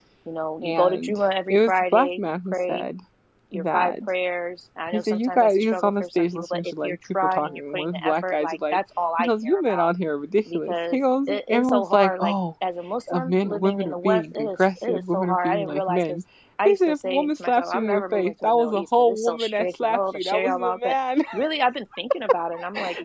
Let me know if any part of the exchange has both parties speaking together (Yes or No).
Yes